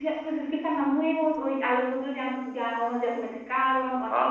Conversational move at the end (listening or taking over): taking over